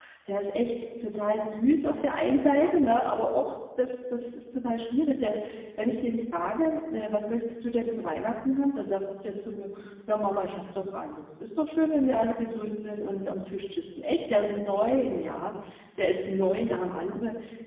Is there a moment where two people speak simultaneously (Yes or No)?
No